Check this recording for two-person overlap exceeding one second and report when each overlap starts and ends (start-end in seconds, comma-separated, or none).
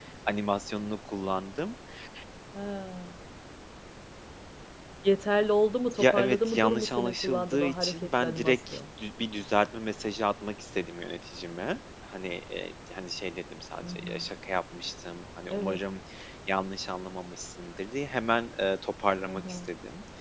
5.9-8.8